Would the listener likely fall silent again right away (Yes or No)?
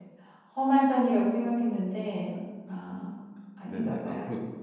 No